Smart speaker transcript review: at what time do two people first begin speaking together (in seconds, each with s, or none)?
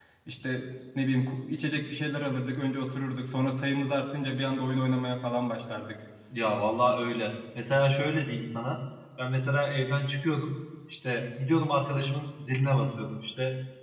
none